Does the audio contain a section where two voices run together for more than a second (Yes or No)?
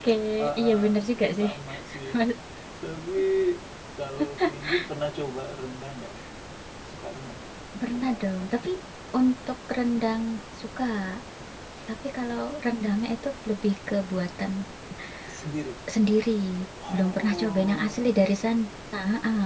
Yes